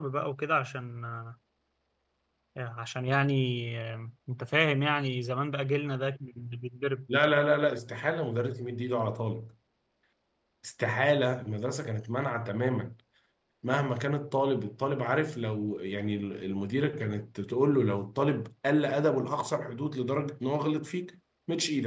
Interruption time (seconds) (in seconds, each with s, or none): none